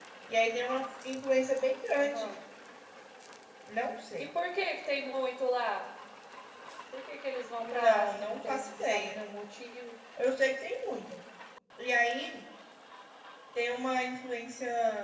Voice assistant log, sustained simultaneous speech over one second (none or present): present